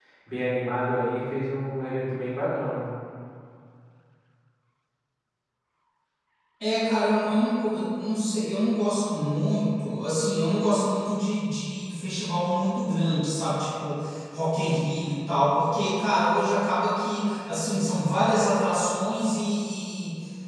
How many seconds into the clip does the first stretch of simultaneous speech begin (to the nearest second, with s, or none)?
none